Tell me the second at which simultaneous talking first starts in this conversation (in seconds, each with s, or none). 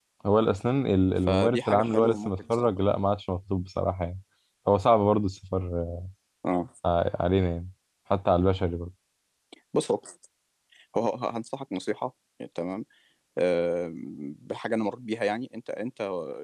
1.3 s